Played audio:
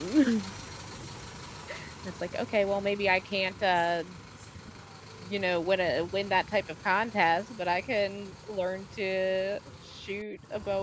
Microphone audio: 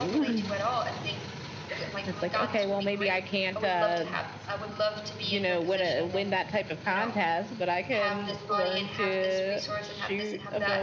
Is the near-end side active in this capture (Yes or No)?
Yes